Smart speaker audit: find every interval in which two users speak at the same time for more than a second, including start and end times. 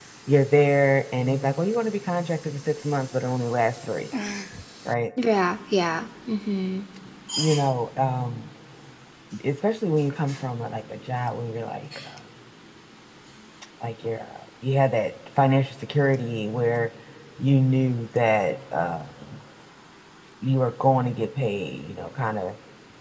none

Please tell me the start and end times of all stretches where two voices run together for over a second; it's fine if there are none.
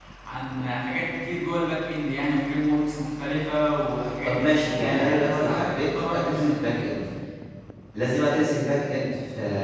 4.2-6.6

